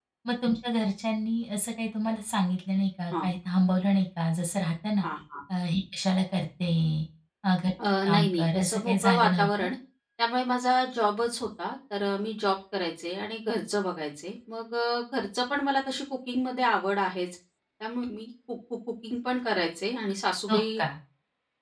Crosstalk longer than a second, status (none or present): present